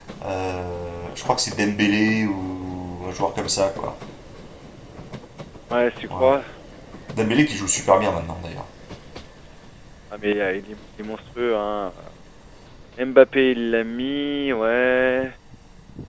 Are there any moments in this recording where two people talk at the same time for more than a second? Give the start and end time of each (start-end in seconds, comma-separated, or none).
none